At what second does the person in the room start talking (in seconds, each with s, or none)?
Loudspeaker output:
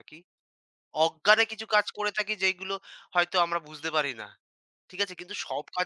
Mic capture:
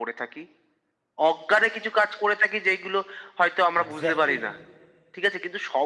3.8 s